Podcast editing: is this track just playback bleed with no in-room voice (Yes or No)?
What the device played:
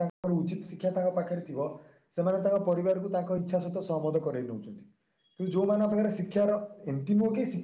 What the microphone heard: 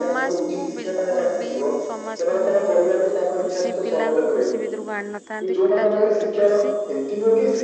No